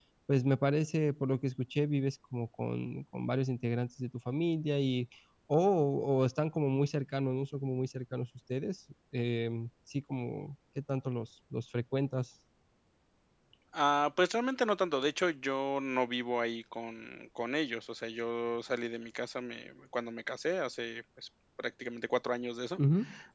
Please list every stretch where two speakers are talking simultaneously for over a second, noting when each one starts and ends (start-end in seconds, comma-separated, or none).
none